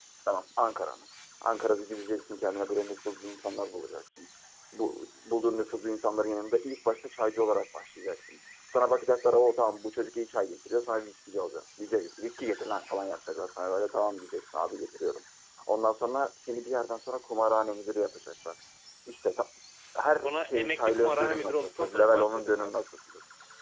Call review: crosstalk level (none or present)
present